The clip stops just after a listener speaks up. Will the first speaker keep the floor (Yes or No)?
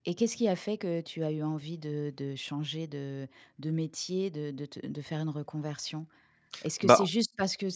Yes